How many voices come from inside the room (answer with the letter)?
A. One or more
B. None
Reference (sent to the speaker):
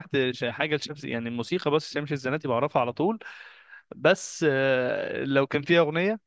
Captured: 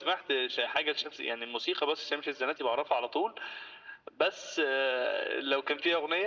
B